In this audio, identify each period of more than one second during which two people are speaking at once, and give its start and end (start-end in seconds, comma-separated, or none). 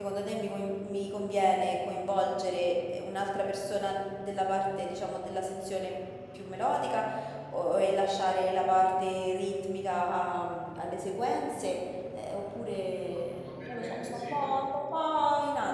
13.3-14.6